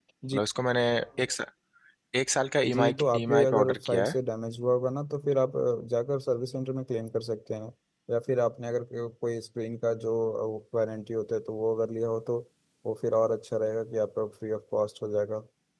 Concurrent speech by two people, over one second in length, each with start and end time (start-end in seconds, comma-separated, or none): 2.7-4.1